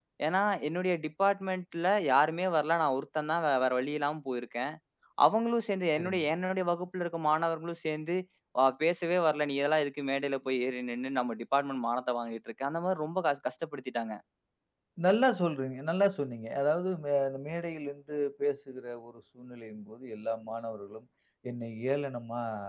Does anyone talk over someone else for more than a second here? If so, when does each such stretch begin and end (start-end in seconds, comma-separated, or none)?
none